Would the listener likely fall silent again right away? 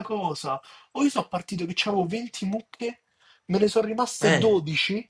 Yes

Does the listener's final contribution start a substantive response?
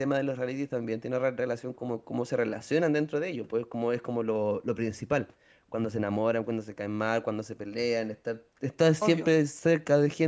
No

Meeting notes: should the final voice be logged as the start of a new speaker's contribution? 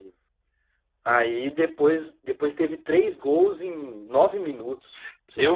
Yes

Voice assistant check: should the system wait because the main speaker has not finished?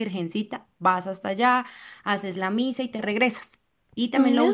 Yes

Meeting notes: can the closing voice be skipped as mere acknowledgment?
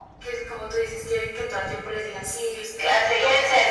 No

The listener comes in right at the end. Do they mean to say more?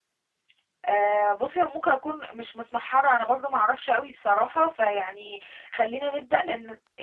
Yes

